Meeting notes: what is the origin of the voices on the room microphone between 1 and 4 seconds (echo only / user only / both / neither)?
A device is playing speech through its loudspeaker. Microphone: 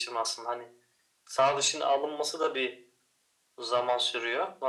echo only